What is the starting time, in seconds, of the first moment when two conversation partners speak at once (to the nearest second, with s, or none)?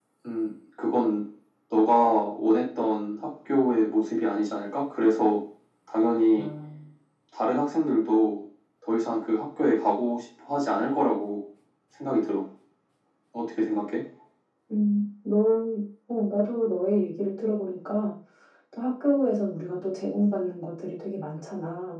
none